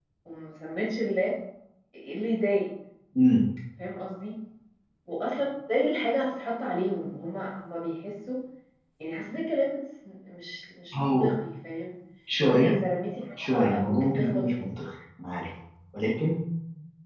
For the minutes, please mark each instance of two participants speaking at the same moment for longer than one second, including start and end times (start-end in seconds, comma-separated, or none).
13.4-14.6